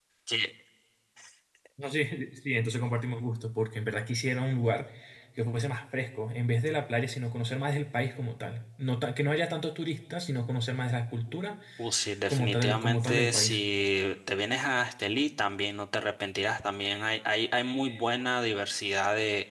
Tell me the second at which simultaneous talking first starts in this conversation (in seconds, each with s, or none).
12.3 s